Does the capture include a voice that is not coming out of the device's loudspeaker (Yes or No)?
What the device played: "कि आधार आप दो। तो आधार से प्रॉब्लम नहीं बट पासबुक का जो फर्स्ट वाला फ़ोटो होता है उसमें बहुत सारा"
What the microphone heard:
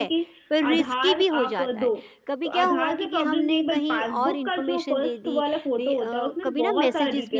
Yes